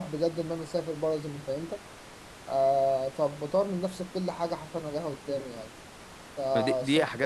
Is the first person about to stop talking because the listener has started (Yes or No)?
Yes